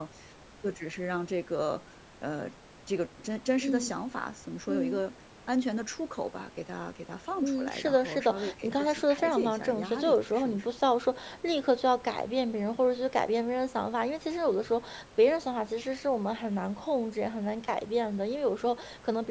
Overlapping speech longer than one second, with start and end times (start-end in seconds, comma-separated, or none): 7.5-10.7